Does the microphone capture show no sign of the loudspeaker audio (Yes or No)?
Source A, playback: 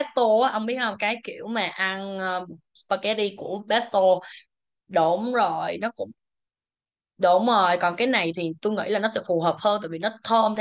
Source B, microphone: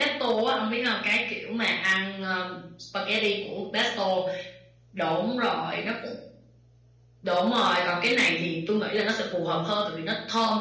No